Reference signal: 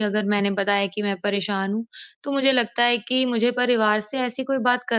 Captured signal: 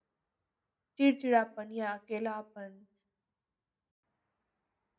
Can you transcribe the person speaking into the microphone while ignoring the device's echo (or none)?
चिड़चिड़ापन या अकेलापन,